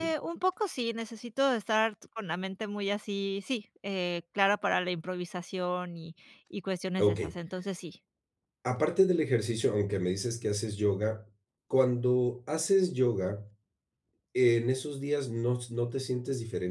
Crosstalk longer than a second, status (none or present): none